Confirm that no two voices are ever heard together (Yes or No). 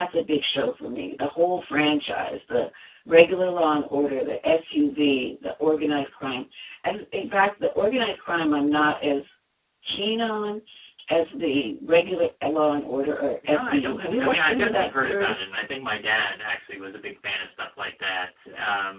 No